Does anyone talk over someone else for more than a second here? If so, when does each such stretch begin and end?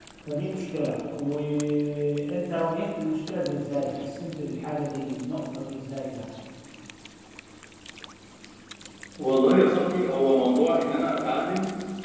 none

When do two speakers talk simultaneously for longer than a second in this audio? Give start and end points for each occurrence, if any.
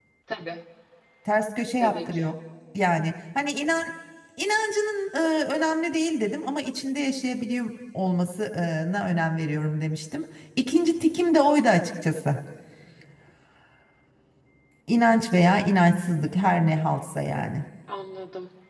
none

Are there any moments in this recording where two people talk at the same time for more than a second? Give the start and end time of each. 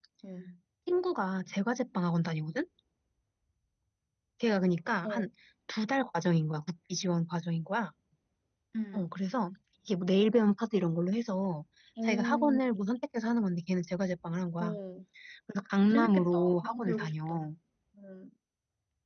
15.9-17.4

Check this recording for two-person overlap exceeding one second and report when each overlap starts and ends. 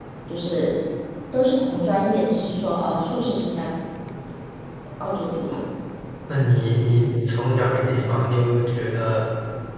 none

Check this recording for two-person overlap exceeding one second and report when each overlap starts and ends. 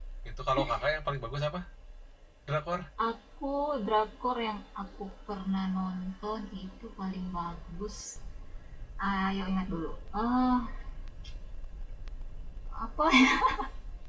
none

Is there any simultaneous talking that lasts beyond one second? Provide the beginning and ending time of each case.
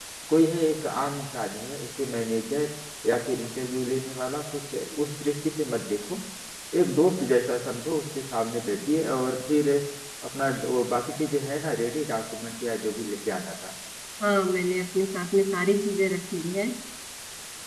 none

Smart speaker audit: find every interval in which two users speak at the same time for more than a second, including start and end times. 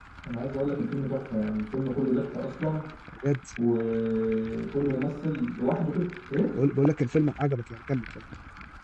none

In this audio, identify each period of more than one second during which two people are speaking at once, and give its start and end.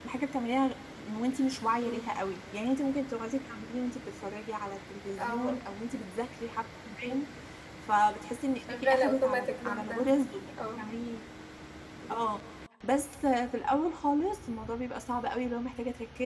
8.7-10.1

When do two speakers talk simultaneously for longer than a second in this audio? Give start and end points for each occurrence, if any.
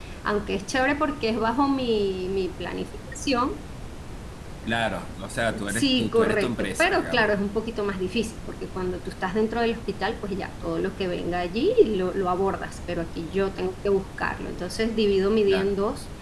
5.7-7.3

